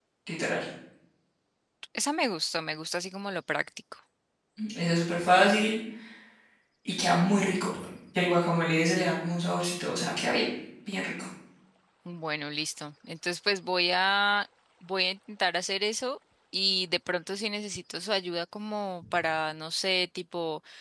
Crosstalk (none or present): none